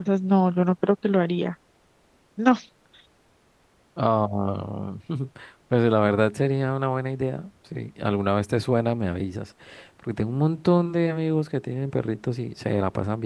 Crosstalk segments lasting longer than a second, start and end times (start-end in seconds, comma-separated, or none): none